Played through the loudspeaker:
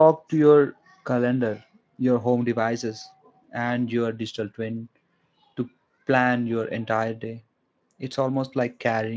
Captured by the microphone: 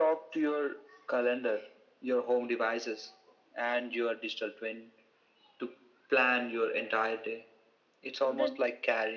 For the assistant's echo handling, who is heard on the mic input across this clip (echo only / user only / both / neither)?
both